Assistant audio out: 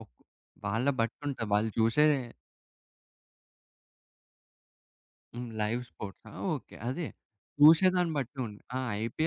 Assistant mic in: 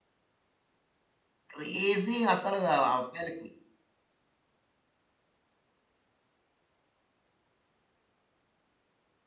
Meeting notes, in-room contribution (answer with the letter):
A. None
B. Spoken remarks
B